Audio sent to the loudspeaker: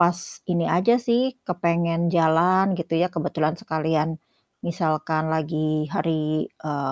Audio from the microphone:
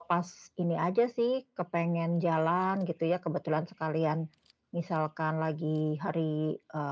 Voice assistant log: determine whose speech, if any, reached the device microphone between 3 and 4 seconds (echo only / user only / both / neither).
echo only